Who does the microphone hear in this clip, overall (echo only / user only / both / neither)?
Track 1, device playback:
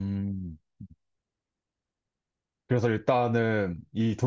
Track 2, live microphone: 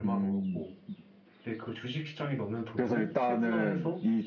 both